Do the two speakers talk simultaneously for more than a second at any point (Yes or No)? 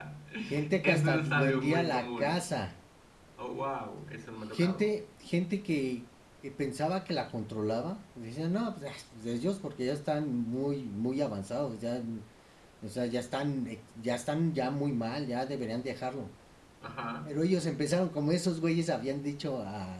Yes